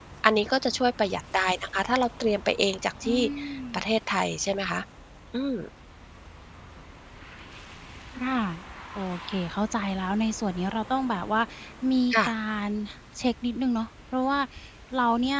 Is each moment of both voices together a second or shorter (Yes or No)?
Yes